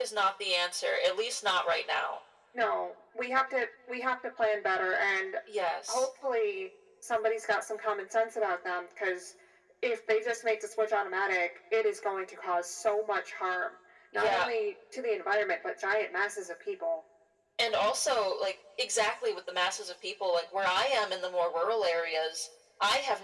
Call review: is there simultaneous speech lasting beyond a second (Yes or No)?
No